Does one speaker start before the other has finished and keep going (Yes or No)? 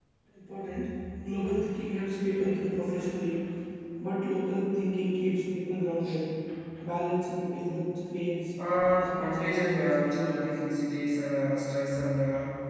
Yes